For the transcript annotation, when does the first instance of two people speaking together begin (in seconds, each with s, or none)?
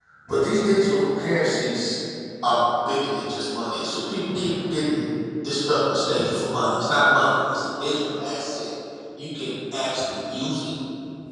none